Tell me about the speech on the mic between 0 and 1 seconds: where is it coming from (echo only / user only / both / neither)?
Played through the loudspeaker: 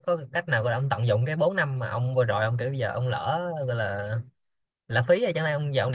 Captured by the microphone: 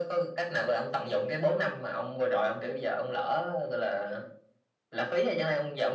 echo only